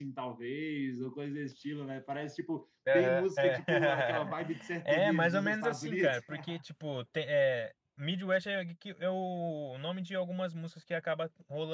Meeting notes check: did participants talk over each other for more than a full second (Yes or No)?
Yes